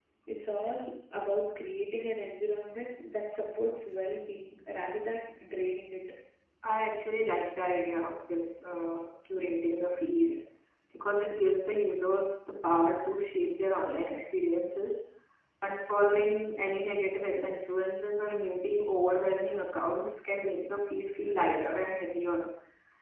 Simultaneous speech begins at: none

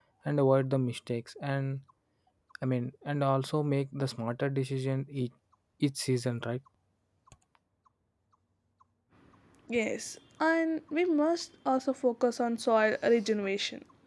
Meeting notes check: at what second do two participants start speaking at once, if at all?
none

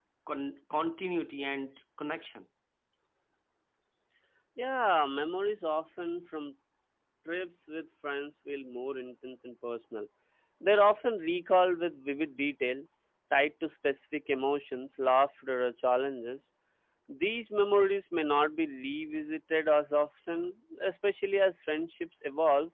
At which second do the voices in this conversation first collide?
none

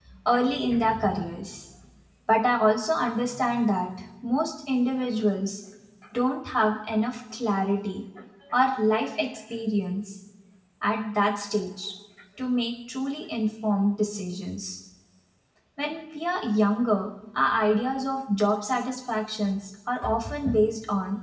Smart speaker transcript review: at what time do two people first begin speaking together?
none

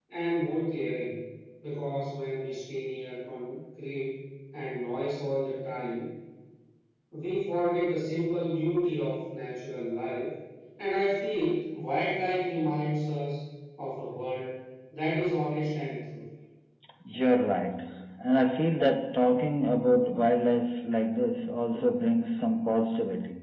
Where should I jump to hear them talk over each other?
none

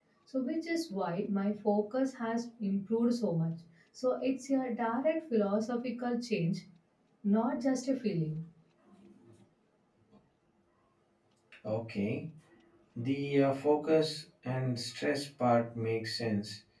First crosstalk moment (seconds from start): none

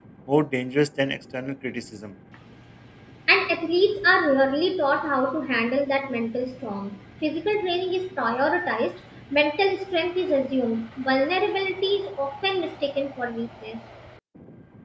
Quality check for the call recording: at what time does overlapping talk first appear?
none

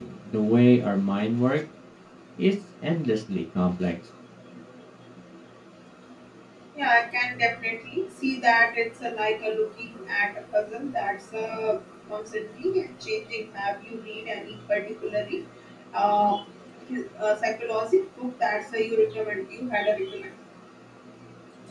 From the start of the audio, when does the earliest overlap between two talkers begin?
none

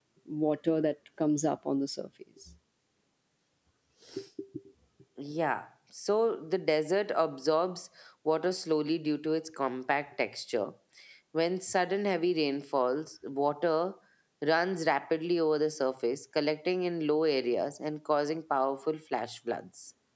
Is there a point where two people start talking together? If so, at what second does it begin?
none

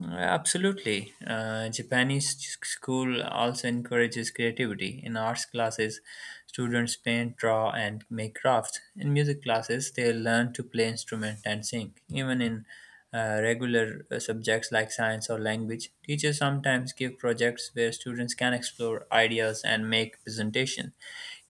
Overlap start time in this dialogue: none

